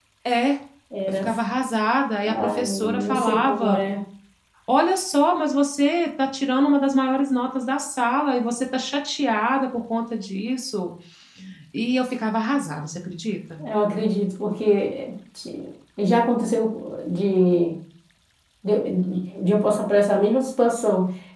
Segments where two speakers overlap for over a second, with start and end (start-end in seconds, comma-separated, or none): 2.3-3.8